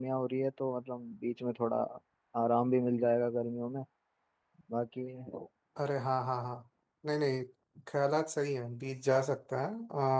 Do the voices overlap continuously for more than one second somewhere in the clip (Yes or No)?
No